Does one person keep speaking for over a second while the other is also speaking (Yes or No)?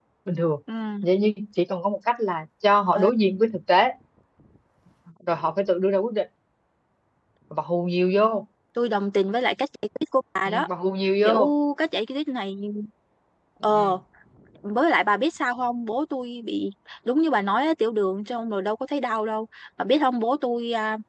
No